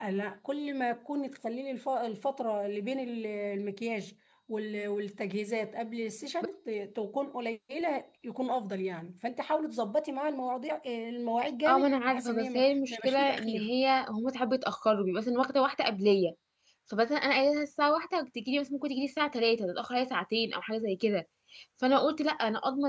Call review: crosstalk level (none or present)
present